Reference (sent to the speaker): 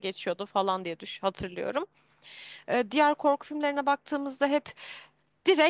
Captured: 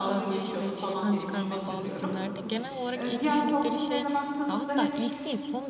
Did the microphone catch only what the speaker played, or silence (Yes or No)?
No